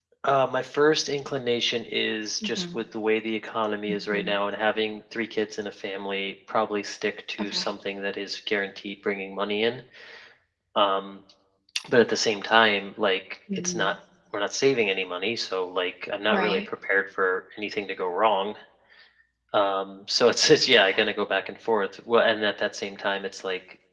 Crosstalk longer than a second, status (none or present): none